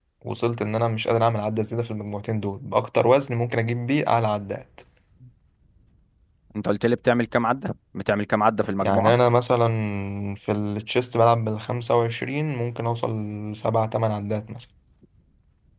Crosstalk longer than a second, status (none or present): none